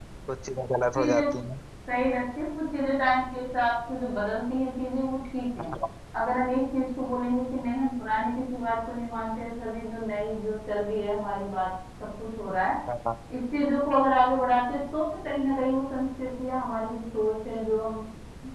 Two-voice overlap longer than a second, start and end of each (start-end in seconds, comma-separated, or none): none